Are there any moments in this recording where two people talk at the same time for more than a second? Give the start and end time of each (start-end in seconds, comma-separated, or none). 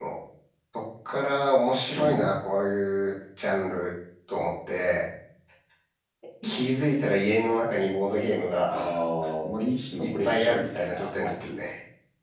10.2-11.6